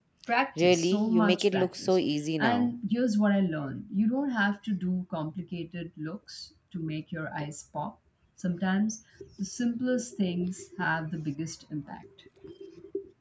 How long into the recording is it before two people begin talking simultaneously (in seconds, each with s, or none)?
0.6 s